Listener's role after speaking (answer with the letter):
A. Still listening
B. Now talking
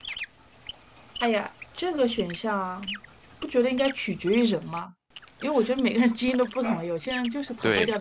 B